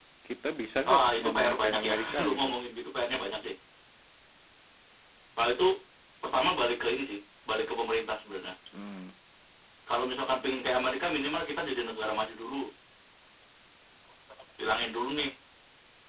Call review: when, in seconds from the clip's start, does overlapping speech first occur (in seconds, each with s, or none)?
0.9 s